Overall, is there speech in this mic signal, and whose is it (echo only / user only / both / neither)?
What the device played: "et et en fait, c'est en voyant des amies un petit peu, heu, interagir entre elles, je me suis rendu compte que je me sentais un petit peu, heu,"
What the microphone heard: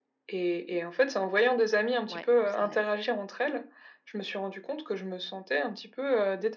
both